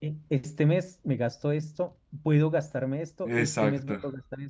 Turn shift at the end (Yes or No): No